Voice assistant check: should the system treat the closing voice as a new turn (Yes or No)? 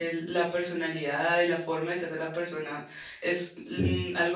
No